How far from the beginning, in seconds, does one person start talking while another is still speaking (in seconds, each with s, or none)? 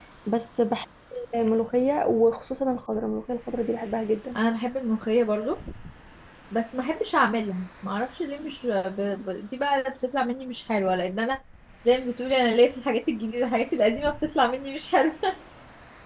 none